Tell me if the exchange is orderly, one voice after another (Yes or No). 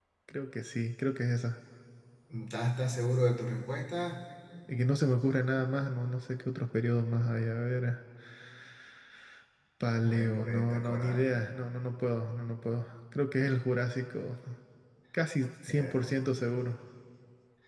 No